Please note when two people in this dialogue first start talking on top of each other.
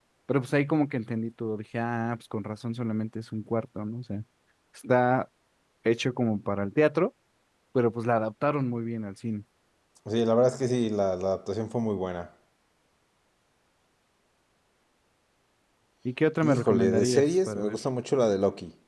16.4 s

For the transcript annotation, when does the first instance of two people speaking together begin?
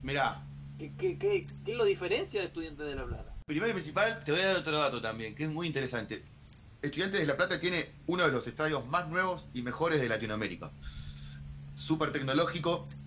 none

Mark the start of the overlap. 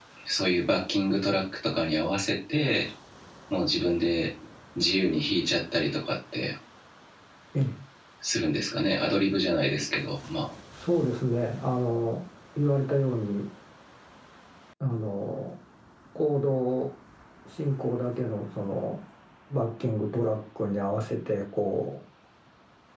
none

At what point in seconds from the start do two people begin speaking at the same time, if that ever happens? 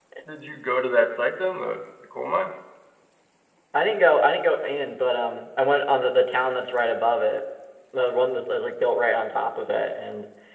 none

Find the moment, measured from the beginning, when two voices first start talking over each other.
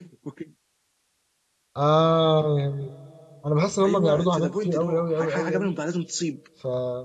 3.8 s

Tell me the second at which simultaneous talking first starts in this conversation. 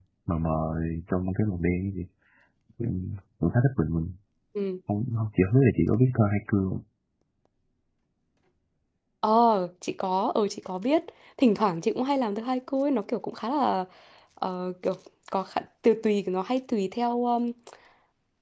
none

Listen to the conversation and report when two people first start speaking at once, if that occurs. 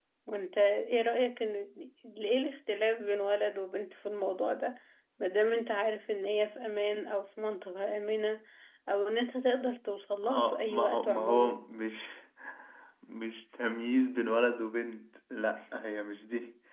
10.2 s

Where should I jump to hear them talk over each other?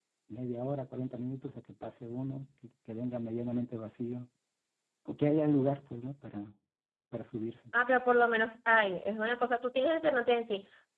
none

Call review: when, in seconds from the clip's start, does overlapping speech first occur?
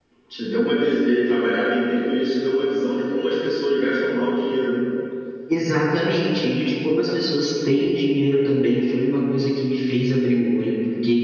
none

